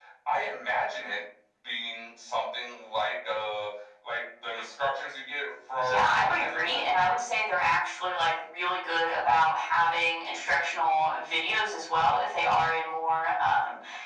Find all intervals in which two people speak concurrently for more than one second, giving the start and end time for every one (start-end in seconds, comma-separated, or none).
5.9-7.1